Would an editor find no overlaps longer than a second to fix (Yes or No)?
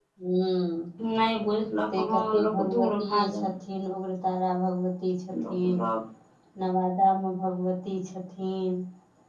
No